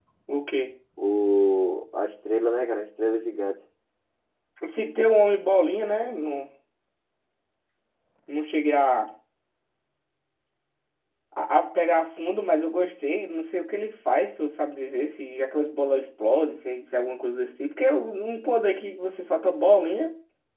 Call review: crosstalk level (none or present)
none